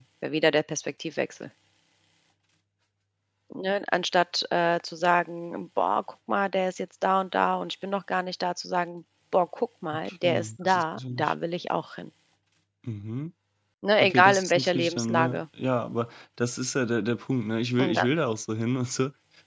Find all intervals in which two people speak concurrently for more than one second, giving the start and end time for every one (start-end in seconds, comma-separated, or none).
10.0-11.3, 14.0-15.4